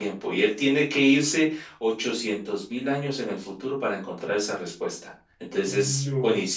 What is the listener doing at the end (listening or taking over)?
listening